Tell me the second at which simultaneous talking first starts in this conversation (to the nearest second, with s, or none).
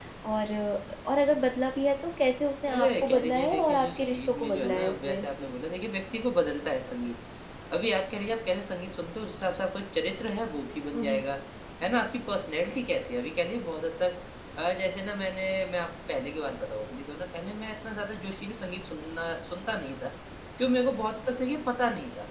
3 s